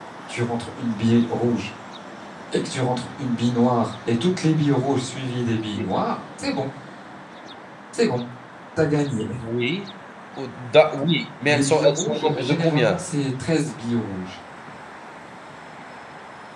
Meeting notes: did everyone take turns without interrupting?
No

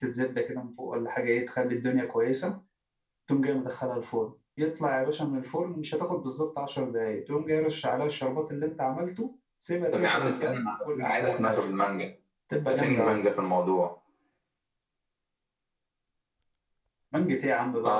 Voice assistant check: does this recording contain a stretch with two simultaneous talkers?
Yes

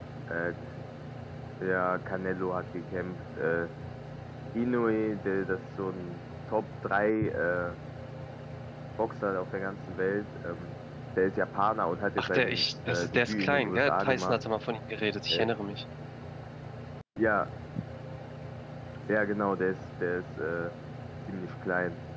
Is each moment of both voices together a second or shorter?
No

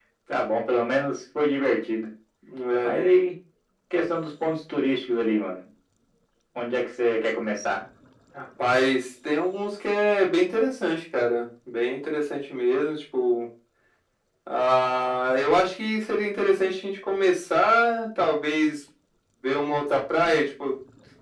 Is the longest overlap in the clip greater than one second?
No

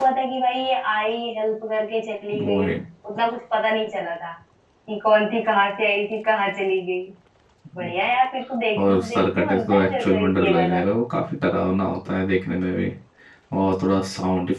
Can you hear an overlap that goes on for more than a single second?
Yes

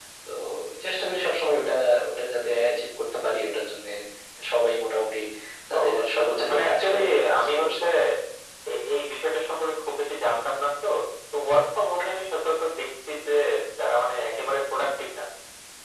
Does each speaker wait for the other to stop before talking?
No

